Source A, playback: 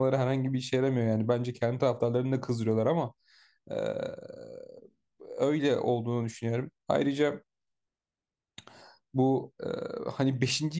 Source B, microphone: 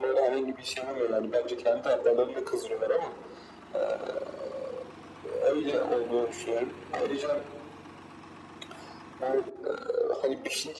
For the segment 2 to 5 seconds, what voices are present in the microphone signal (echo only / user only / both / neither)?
echo only